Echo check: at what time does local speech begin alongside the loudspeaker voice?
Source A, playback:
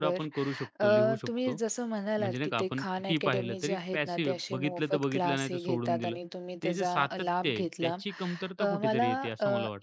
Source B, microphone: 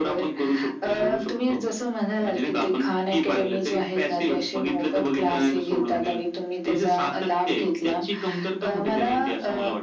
none

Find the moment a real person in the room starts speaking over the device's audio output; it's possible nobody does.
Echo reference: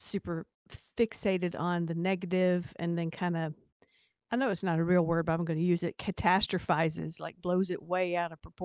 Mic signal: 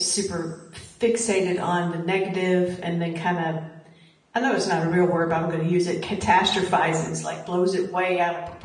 none

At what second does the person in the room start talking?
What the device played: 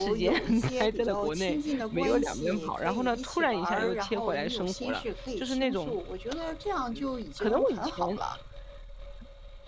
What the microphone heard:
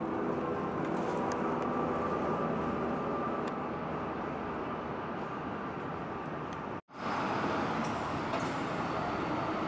none

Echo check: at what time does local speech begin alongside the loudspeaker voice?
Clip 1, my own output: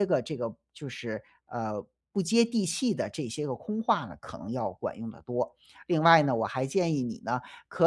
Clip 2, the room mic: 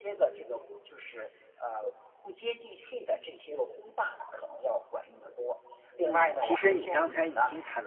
6.0 s

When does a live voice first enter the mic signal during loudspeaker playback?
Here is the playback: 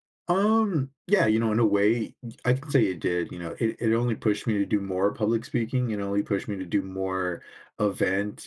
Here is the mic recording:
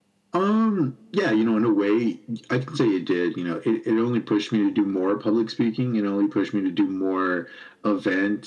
none

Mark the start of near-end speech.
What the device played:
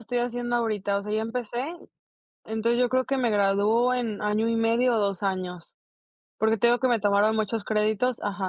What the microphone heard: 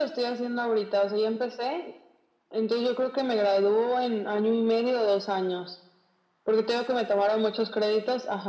none

